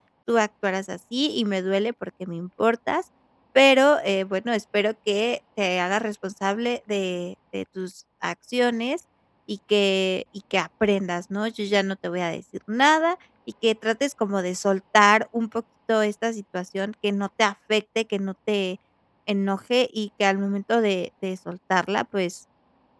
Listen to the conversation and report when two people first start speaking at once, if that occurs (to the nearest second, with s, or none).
none